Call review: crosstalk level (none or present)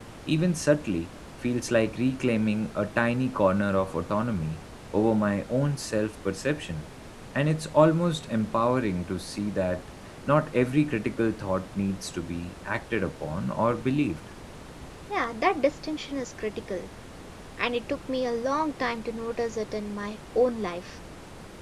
none